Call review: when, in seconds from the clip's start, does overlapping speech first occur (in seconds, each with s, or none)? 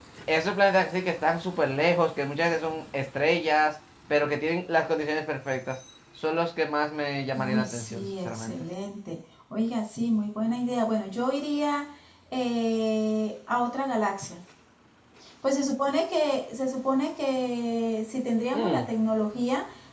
7.4 s